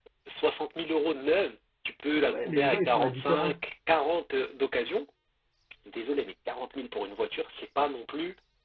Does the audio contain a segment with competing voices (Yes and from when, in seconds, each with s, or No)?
Yes, from 2.3 s